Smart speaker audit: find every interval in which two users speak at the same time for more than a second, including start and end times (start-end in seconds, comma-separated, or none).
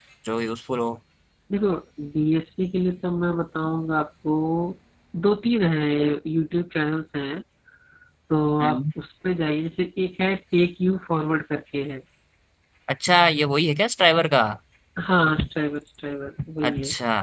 none